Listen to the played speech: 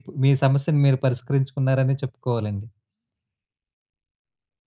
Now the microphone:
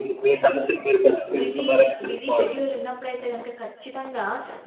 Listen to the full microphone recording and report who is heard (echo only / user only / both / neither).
both